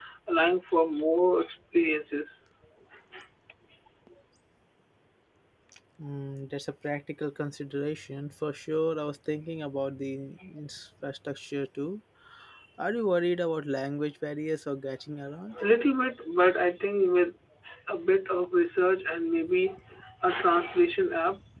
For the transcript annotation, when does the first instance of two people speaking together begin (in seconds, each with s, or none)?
none